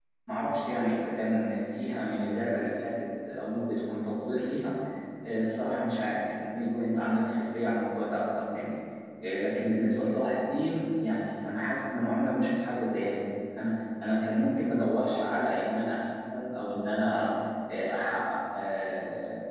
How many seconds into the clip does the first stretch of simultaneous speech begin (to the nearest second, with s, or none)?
none